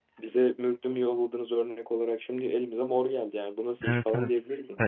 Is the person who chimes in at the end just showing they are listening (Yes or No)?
No